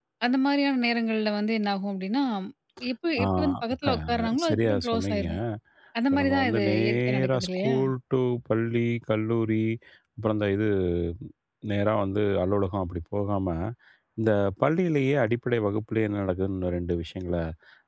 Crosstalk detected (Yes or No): Yes